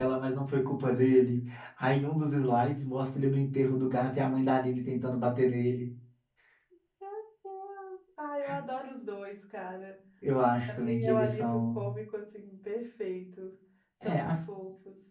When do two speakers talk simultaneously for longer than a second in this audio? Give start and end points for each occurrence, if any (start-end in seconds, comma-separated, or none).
10.7-11.9